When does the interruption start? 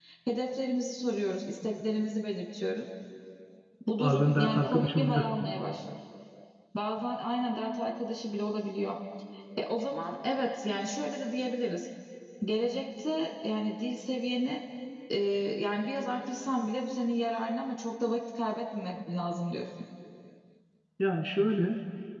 4.0 s

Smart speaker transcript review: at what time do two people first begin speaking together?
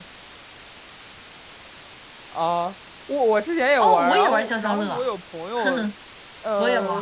3.8 s

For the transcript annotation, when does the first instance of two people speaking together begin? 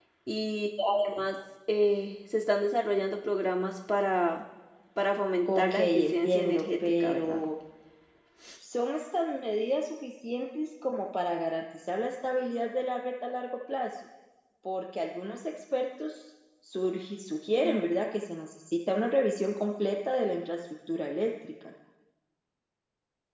5.5 s

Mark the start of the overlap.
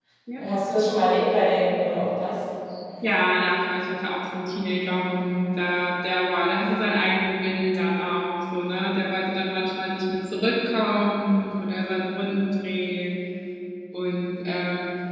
none

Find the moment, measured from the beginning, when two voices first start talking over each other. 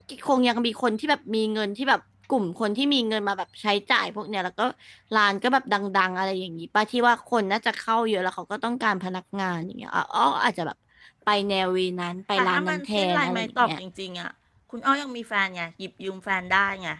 12.4 s

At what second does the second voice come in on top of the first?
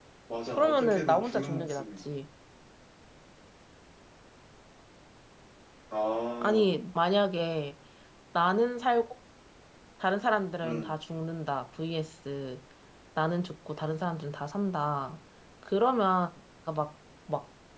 0.6 s

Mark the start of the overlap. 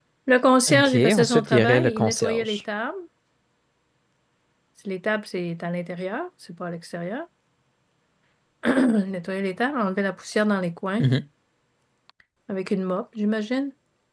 0.7 s

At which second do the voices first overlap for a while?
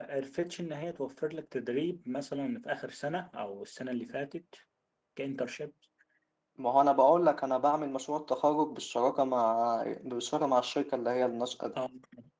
none

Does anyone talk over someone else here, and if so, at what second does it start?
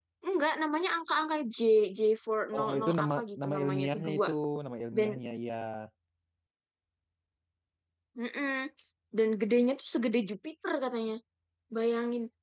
2.5 s

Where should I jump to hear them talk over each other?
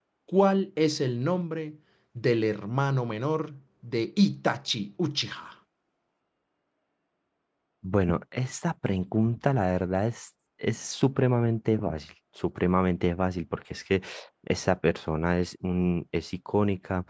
none

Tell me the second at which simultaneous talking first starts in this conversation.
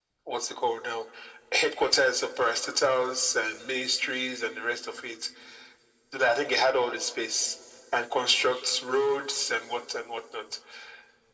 none

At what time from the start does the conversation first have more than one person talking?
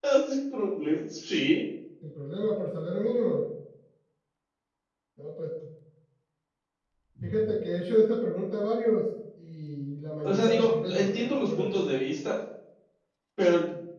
10.2 s

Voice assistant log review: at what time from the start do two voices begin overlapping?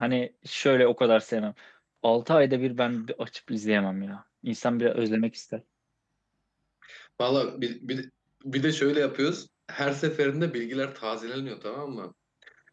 none

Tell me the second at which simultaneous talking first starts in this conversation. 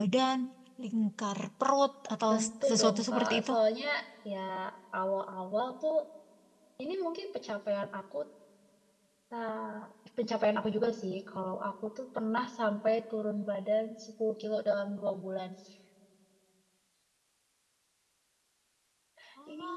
2.3 s

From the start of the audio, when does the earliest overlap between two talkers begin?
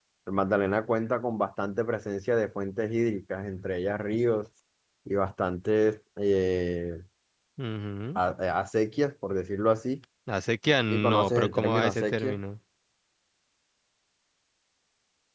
10.9 s

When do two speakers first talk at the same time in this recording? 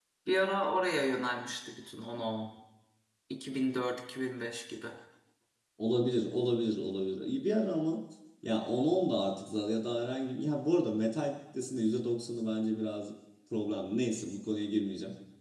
none

